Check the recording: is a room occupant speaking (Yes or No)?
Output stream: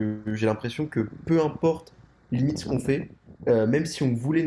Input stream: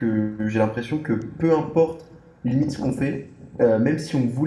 No